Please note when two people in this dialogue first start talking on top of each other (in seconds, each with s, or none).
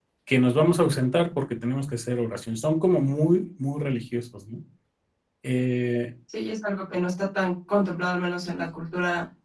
none